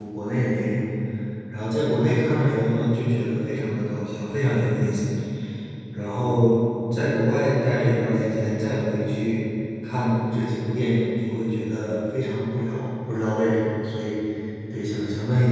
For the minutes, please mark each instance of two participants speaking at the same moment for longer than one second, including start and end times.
none

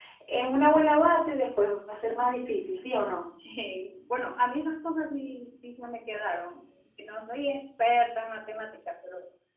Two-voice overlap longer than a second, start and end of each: none

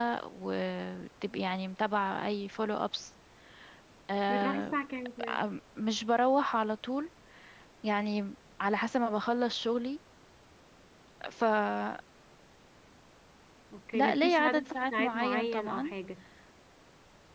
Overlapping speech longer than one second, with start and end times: 13.9-15.9

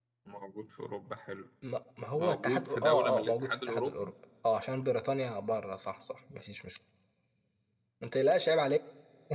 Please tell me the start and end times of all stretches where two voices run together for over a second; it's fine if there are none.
2.2-4.1

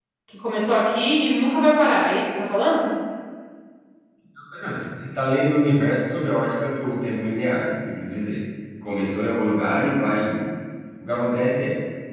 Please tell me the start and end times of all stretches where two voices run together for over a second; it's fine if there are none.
none

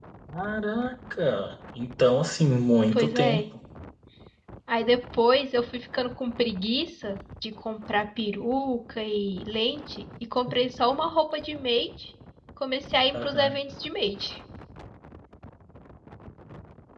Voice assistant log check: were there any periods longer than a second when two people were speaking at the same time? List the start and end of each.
none

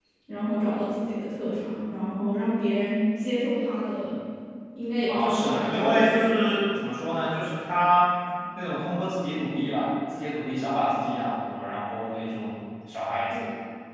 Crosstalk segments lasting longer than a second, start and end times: 5.1-6.4

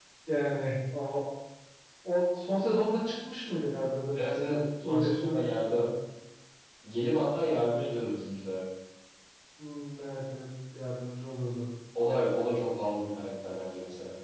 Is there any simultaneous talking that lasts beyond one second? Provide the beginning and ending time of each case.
4.2-5.9

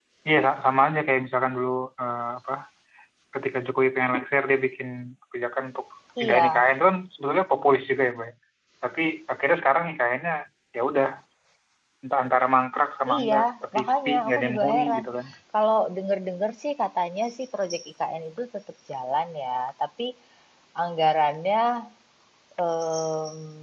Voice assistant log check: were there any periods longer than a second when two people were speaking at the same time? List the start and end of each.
13.8-15.0

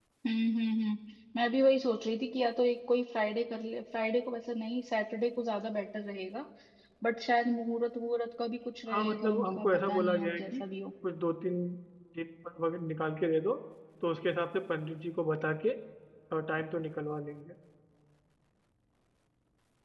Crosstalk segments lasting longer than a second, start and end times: 8.9-10.6

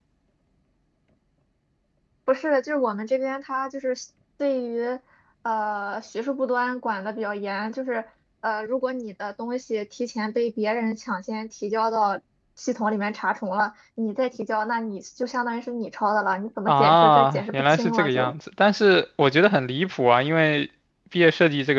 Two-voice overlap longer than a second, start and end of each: 16.7-18.3

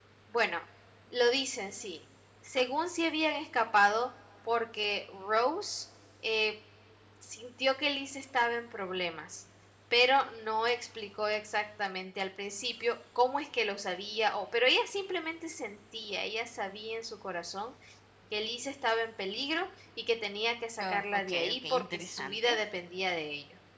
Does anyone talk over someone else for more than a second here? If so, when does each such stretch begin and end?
20.8-22.6

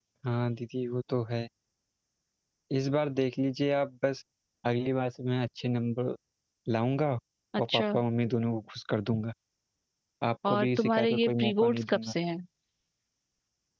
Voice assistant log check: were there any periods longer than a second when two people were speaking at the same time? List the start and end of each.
10.5-12.1

